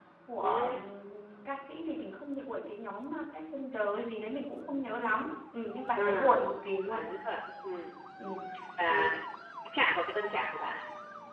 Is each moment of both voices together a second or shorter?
Yes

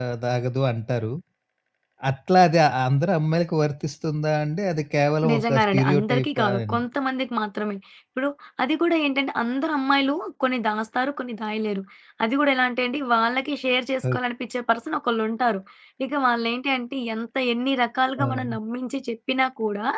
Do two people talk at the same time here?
Yes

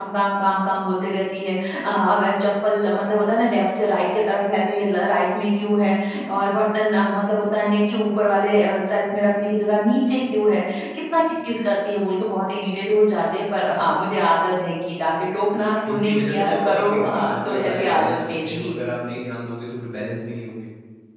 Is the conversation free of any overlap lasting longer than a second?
No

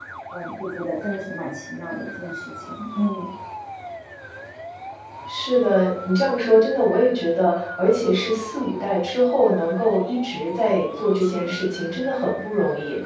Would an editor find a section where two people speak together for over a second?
No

